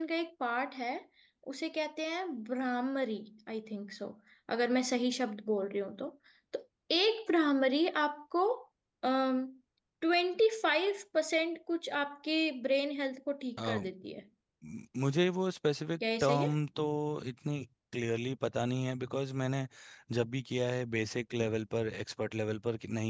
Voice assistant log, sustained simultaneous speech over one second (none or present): none